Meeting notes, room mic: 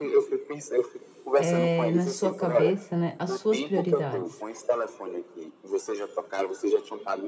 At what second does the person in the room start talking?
1.4 s

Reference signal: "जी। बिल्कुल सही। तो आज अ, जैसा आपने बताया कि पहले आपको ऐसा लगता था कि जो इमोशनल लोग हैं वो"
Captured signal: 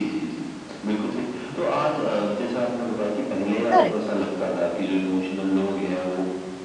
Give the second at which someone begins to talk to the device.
3.7 s

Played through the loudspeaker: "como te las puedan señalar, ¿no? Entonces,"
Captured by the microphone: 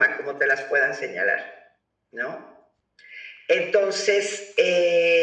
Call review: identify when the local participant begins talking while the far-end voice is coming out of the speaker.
none

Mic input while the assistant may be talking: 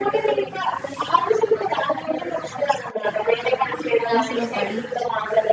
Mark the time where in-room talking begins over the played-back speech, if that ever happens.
4.1 s

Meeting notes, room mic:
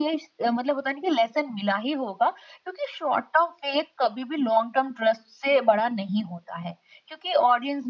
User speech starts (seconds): none

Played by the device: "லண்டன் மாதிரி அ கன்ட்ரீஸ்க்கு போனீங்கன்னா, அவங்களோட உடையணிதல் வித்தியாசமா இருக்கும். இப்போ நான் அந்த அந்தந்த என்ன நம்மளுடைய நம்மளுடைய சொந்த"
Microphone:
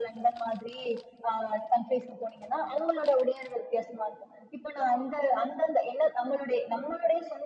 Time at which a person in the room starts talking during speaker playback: none

